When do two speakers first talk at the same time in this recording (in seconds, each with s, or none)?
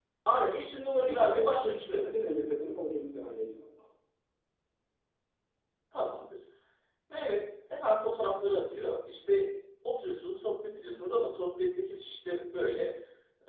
1.1 s